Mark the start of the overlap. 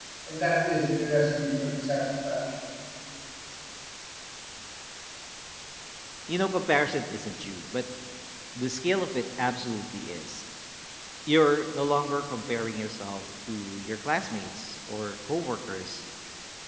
none

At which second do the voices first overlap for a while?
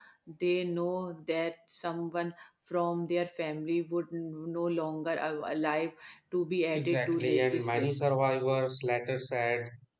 7 s

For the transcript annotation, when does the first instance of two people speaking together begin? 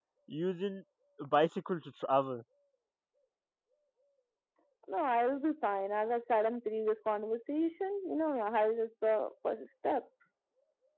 none

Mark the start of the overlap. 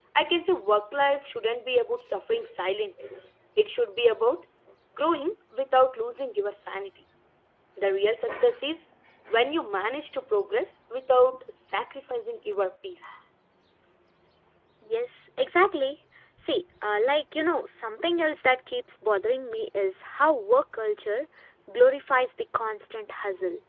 none

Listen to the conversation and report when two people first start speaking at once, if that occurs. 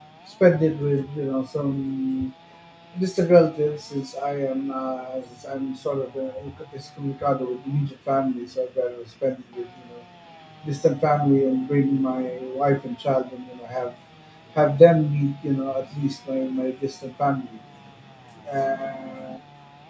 none

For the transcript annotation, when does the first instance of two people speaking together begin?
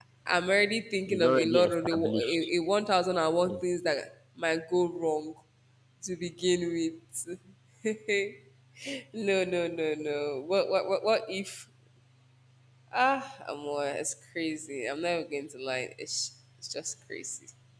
1 s

